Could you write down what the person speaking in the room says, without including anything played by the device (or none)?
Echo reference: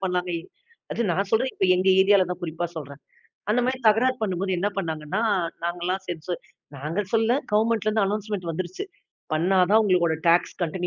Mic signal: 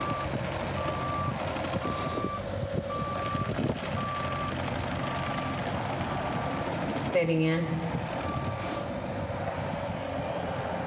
சரிங்க.